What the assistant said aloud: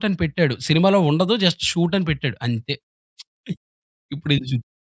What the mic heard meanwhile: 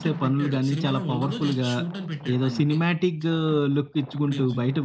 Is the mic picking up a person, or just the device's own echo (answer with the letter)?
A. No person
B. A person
B